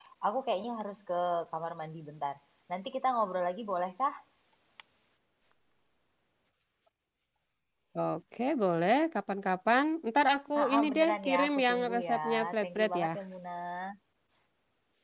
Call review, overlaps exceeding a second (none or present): present